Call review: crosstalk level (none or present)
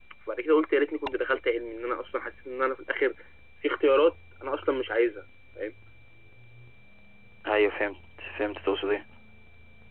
none